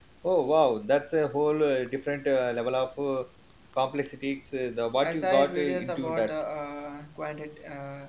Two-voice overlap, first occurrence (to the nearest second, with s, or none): 5 s